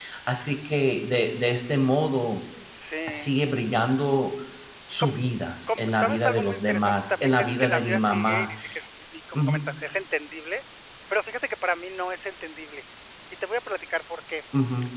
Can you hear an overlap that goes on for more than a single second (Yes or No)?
Yes